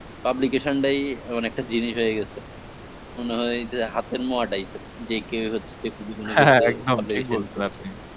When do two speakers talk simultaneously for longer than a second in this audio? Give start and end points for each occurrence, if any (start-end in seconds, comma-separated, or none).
6.3-7.7